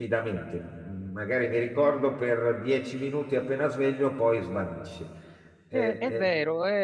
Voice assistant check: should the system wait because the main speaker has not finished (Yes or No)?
No